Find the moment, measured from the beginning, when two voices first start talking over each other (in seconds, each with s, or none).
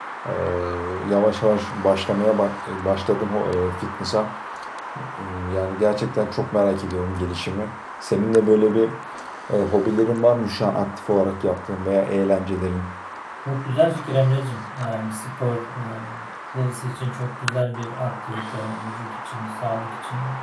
none